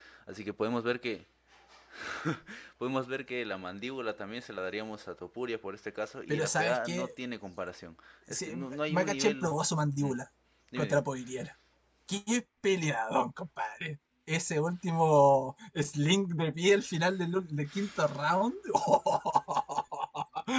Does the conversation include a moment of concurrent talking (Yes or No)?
Yes